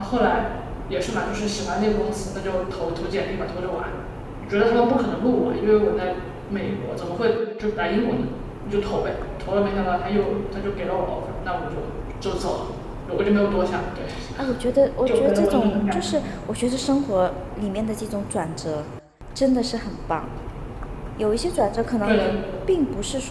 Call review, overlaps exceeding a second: present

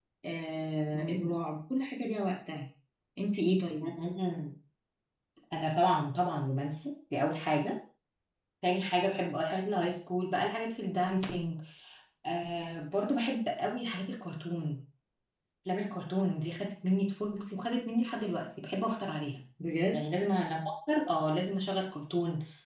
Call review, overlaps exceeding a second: none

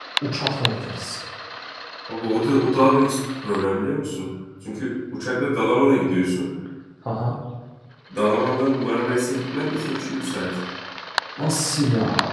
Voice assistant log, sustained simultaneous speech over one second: none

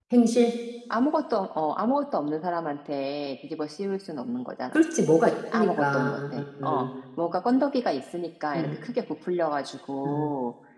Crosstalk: present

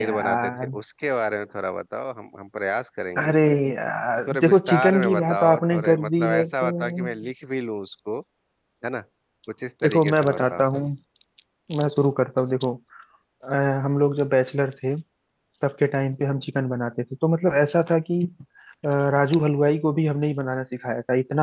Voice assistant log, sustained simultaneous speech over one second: present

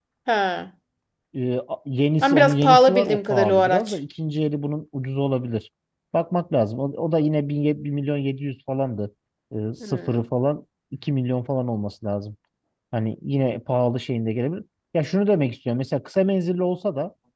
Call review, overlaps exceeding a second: present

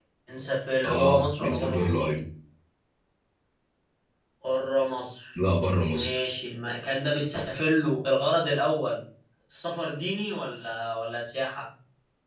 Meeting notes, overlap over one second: present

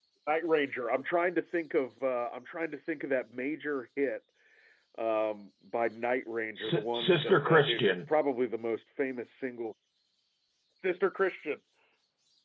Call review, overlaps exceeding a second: present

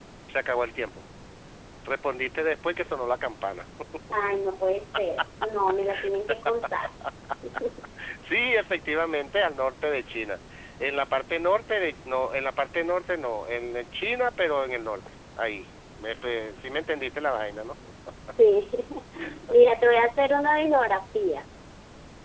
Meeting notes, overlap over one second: none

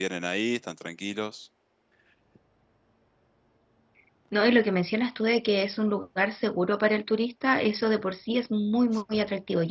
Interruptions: none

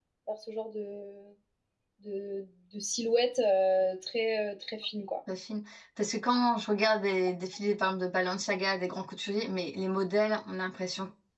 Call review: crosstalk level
none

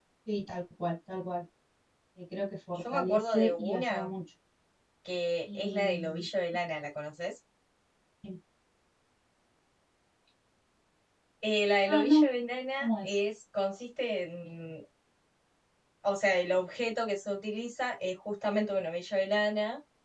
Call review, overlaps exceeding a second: present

